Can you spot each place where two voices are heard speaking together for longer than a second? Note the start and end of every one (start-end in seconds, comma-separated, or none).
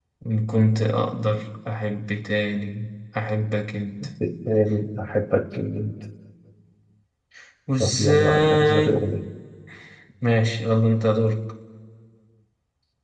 7.8-9.1